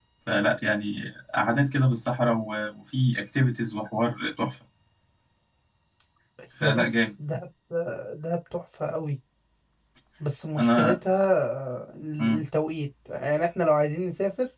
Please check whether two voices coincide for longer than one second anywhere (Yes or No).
No